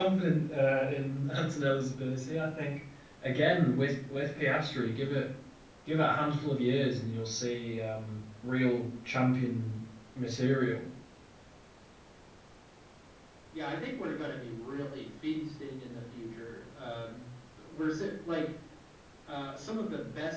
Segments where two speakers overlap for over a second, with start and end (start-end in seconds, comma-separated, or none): none